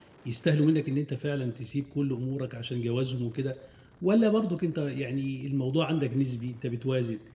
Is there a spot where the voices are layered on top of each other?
No

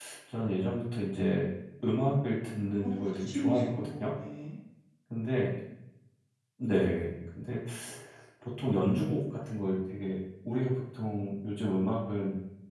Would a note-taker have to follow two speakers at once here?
Yes, from 2.8 s

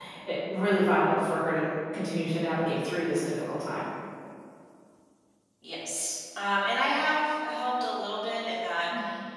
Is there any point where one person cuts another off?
No

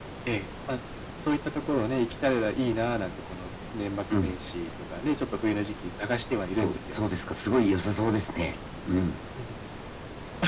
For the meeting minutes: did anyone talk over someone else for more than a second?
No

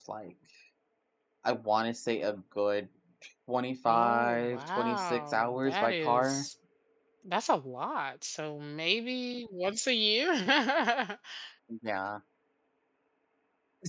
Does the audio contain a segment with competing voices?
Yes, from 3.9 s

